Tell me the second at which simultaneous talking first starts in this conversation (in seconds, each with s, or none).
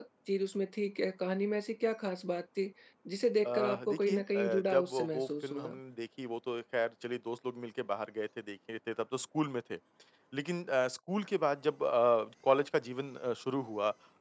3.4 s